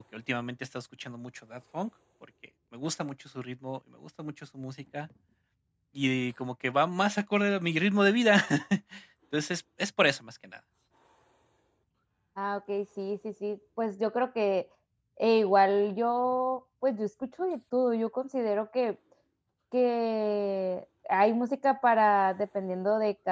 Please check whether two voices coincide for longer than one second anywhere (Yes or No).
No